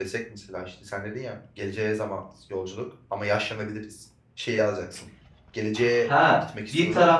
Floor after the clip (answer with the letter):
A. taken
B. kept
A